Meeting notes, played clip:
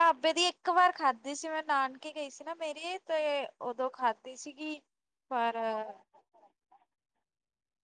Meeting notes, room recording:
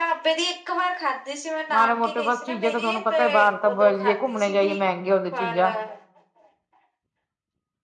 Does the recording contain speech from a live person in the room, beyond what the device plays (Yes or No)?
Yes